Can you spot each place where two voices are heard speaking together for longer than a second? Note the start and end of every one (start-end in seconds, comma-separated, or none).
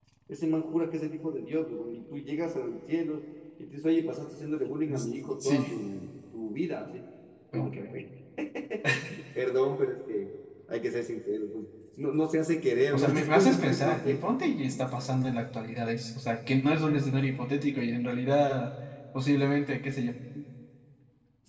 12.9-14.3